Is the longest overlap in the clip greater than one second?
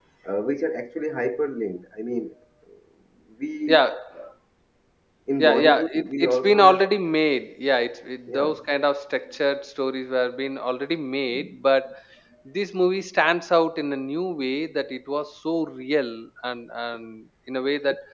Yes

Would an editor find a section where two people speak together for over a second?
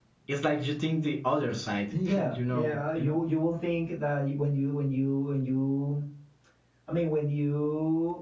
Yes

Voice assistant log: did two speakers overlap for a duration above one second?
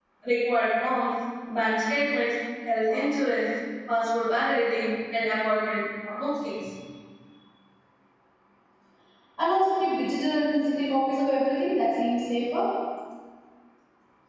No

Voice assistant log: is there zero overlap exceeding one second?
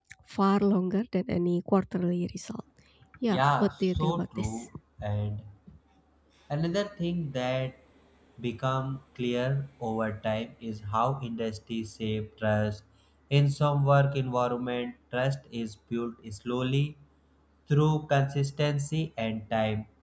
No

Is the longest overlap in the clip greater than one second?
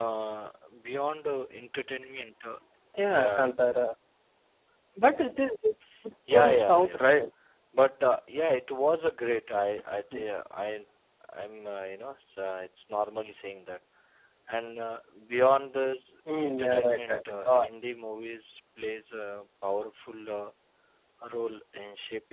Yes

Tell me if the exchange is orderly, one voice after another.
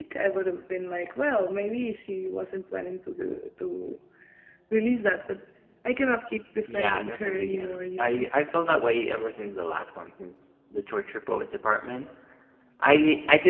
No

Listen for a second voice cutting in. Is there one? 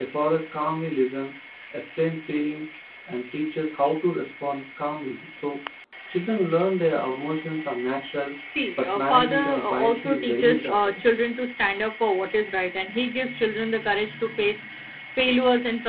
Yes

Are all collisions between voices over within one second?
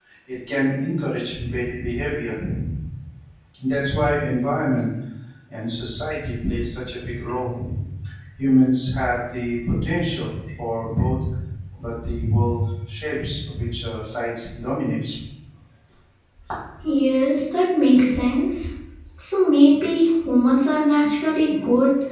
Yes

